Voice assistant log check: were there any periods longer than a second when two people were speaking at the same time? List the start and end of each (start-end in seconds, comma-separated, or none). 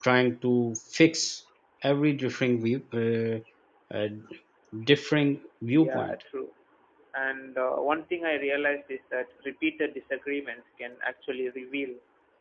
none